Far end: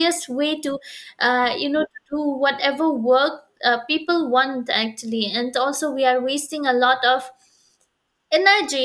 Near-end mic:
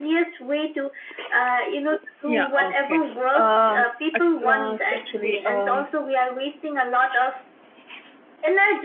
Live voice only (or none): Yeah, okay. Um, at last, actually, um,